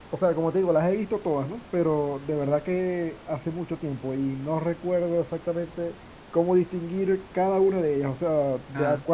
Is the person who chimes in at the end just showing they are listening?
Yes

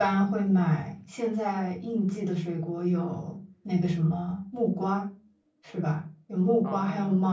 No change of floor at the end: Yes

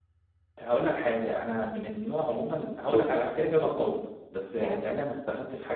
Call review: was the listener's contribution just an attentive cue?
Yes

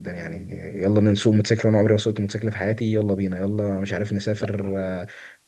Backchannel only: Yes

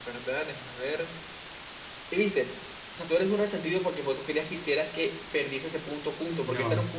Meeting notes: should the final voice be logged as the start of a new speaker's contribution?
No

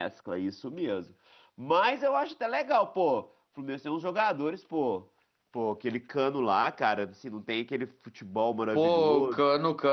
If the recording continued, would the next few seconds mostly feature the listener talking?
Yes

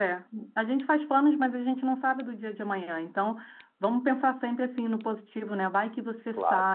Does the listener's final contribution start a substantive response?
No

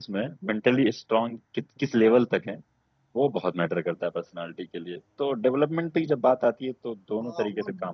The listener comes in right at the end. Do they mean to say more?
Yes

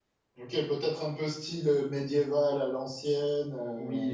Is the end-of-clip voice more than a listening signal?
Yes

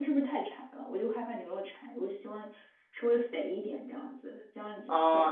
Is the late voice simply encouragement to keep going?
No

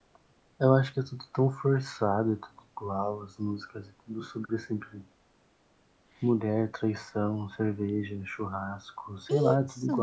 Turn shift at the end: No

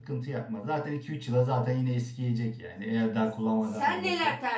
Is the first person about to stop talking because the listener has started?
Yes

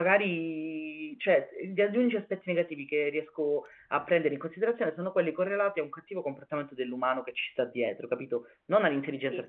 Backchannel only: Yes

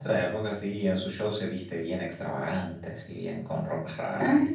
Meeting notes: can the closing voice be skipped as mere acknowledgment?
No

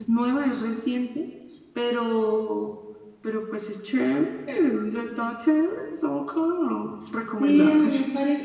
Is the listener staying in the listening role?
No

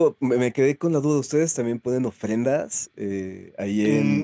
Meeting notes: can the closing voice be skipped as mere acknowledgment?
No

